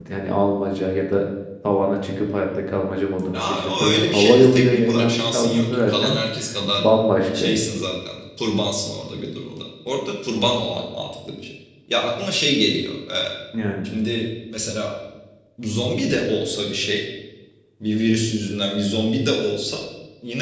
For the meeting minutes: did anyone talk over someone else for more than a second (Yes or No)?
Yes